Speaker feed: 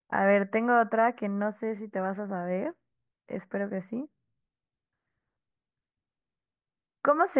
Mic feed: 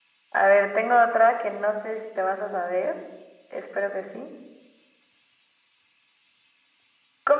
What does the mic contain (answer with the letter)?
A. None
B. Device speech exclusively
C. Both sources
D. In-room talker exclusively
B